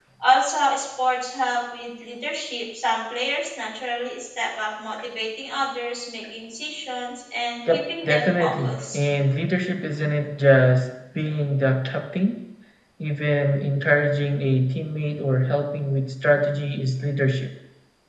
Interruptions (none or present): present